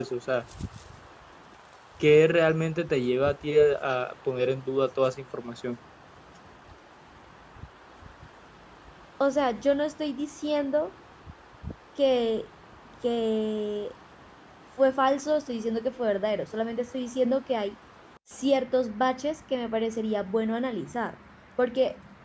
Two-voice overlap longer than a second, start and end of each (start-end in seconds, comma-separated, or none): none